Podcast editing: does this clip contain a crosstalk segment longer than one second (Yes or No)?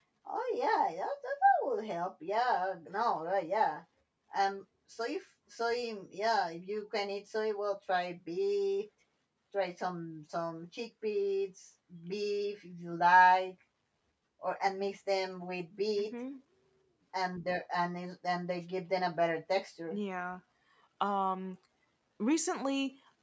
No